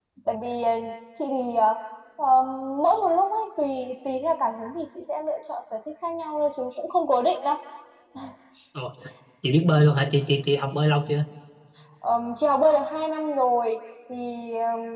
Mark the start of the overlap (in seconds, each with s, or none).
none